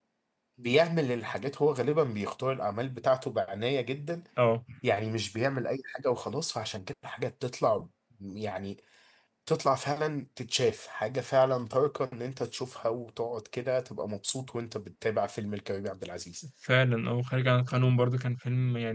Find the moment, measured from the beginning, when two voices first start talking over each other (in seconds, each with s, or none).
none